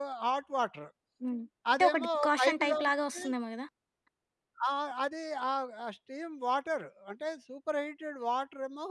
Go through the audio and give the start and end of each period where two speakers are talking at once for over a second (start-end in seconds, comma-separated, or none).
1.7-3.2